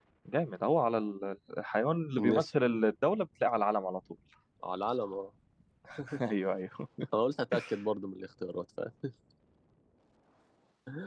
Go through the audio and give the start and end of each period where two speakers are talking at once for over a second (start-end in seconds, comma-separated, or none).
none